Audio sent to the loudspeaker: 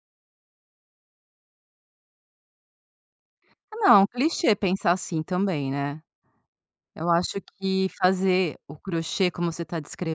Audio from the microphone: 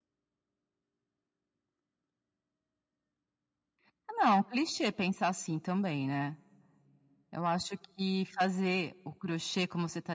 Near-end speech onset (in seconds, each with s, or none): none